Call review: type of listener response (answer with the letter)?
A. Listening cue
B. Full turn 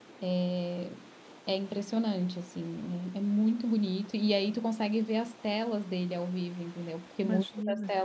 A